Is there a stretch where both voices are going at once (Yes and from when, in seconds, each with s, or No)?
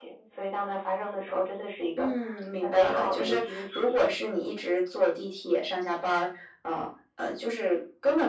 Yes, from 2.6 s